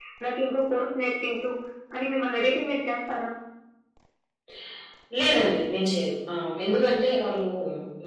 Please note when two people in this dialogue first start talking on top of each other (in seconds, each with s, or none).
none